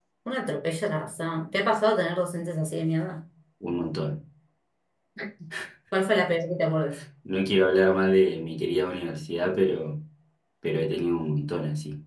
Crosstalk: none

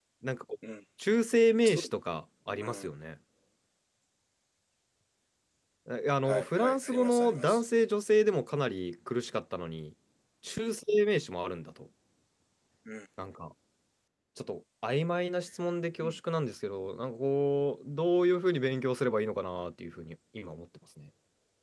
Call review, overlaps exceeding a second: present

